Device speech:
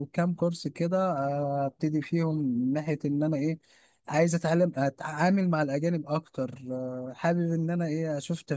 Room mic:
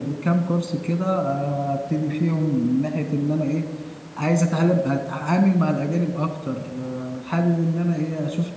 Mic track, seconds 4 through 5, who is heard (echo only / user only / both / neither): echo only